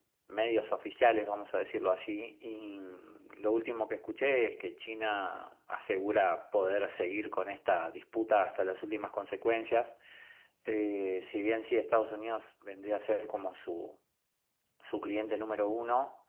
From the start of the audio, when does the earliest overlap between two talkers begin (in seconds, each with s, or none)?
none